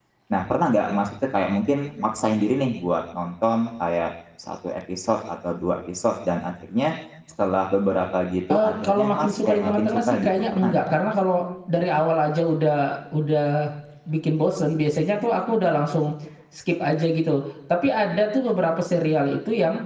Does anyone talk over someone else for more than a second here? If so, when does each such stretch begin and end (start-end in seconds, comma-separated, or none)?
8.5-10.8